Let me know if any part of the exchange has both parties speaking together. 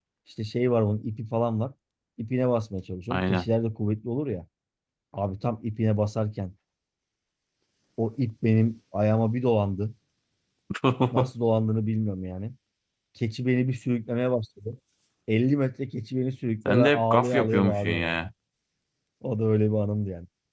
Yes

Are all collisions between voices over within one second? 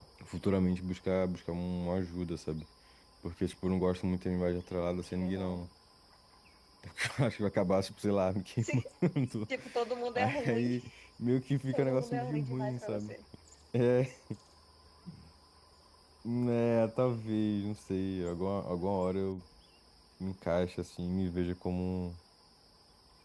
No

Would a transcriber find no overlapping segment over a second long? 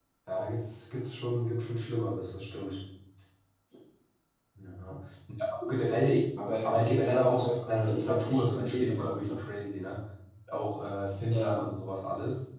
No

